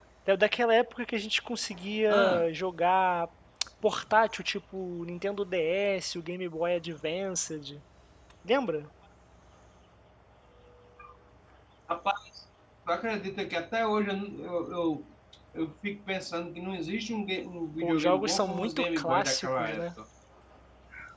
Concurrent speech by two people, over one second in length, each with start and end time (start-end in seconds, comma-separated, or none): 17.8-19.8